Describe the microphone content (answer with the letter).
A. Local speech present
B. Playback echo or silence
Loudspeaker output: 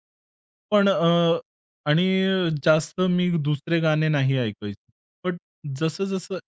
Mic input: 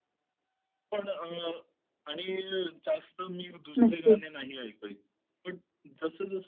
A